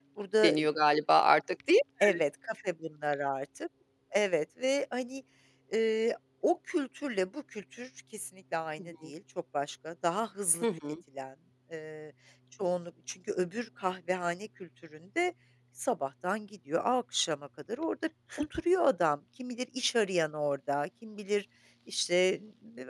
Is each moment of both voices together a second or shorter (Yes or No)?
Yes